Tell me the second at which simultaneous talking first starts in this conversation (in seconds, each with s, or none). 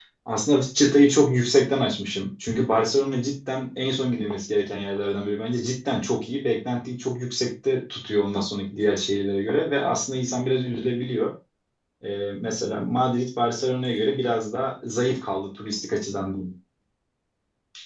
none